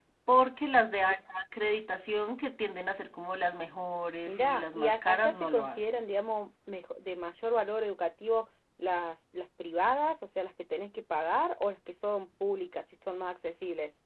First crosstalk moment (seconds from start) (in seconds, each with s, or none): 4.3 s